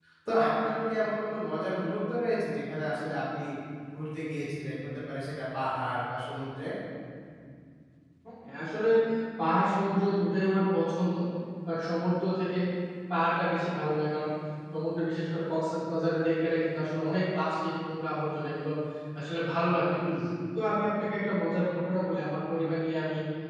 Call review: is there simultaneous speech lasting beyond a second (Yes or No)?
No